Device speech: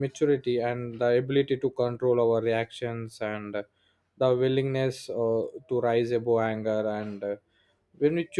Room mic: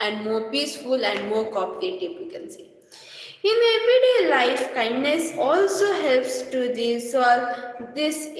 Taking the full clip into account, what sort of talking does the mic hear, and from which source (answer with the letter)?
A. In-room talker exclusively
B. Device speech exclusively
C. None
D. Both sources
A